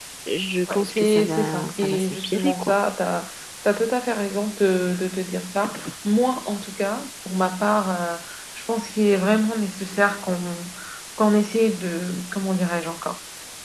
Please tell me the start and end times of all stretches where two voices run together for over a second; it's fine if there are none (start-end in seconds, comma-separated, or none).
0.7-2.8